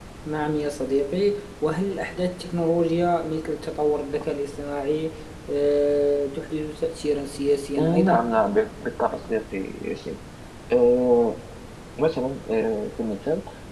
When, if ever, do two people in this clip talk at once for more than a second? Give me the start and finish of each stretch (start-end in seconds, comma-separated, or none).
none